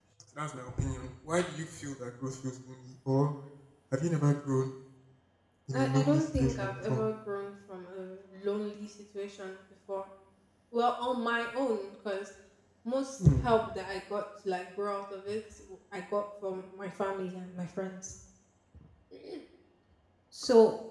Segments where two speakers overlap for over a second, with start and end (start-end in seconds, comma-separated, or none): 5.7-7.0